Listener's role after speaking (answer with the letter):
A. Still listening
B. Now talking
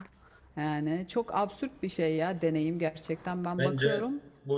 B